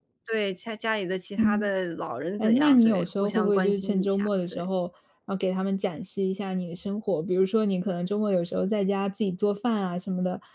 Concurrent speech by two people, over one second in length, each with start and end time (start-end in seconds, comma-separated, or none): 2.4-4.7